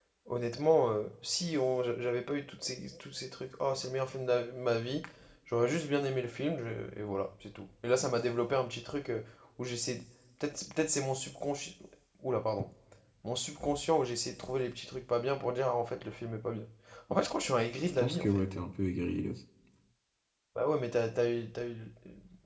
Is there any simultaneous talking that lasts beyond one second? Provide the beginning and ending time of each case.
none

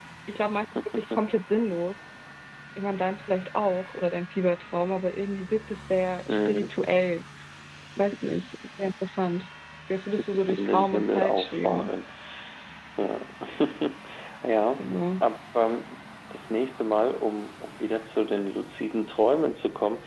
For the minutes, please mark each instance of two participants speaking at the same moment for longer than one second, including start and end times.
10.5-11.9

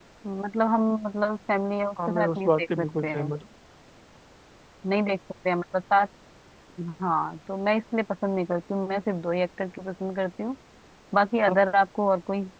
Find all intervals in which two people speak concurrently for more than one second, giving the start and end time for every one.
2.1-3.3

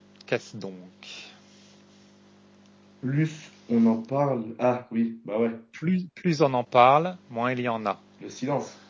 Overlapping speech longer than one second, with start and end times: none

